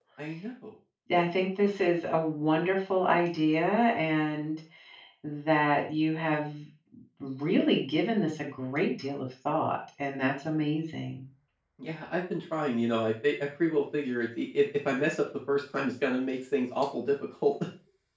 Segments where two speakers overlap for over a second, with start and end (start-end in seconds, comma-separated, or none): none